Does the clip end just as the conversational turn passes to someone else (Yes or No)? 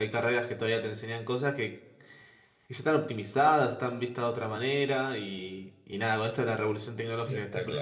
No